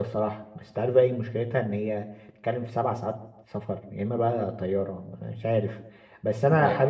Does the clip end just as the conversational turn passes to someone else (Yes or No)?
No